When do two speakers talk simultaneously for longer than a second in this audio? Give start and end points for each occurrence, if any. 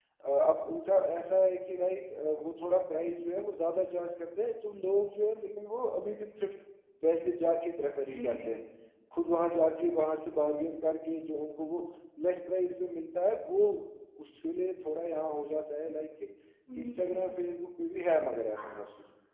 none

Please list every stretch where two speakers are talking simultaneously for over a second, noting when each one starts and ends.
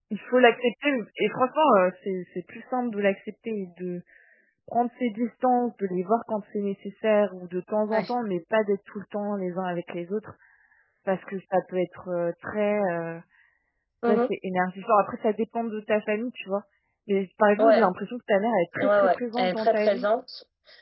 18.8-20.1

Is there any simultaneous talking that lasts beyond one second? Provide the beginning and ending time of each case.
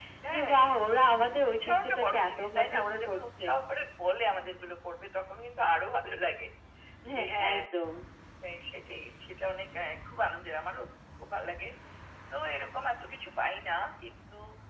1.6-3.4

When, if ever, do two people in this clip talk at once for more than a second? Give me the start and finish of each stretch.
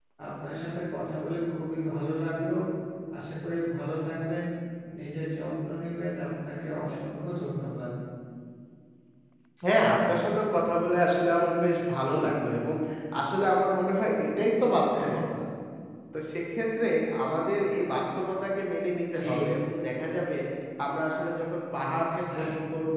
none

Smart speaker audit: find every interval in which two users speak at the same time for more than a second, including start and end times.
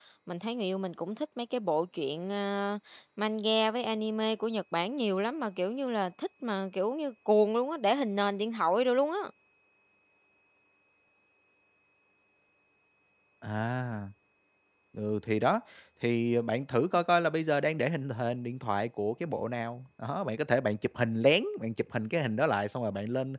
none

